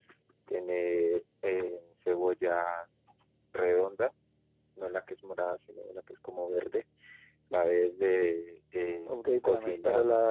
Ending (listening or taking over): taking over